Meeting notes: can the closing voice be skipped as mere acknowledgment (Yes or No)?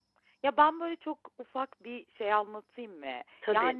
Yes